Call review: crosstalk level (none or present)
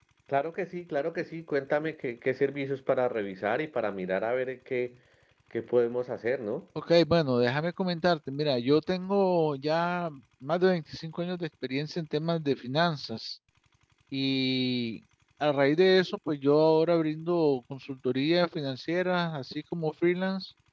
none